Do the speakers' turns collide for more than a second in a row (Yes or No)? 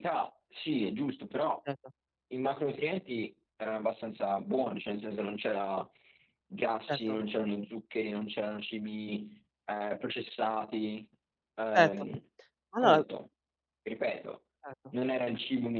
No